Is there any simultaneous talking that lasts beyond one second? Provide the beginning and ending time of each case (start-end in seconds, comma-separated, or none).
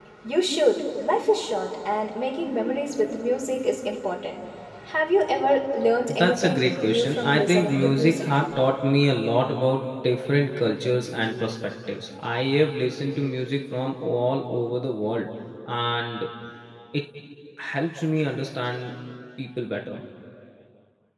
6.1-8.3